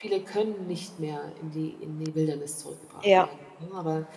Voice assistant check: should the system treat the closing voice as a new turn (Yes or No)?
No